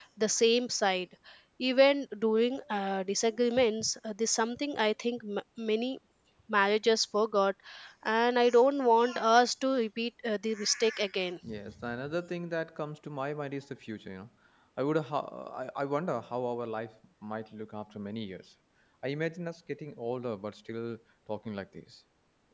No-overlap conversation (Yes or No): Yes